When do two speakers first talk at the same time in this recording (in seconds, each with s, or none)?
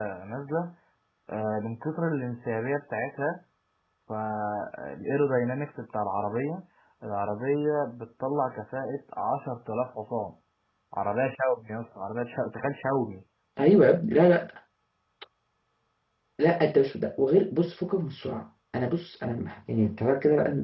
none